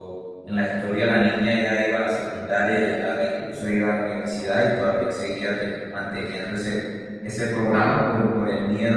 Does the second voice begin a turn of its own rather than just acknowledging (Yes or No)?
No